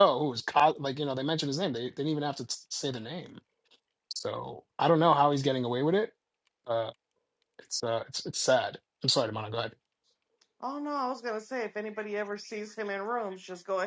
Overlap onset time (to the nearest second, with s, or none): none